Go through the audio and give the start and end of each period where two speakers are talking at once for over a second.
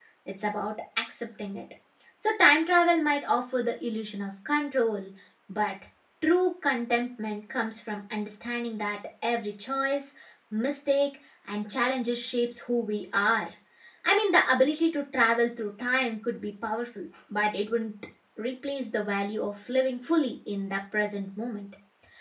none

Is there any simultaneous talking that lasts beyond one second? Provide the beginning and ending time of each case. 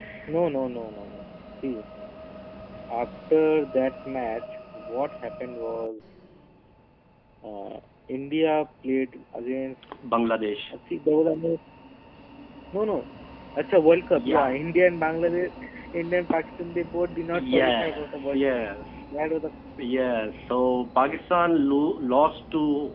17.3-18.6

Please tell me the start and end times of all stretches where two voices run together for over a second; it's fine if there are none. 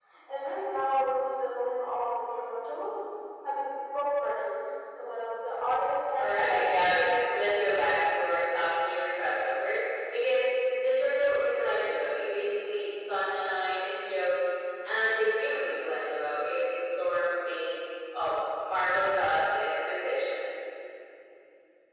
6.2-7.7

